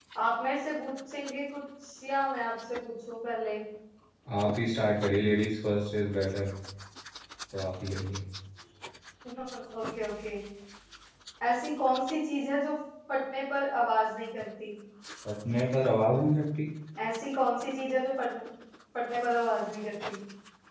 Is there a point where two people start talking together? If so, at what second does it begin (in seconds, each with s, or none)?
none